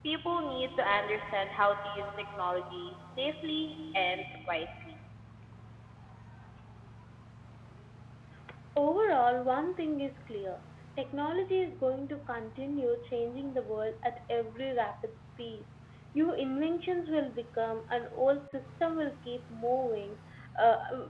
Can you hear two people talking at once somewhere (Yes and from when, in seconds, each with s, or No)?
No